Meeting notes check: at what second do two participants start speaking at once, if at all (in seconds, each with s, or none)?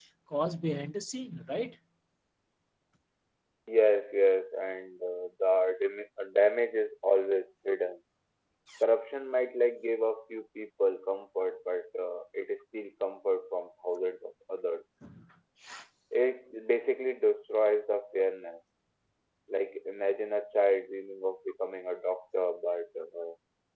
none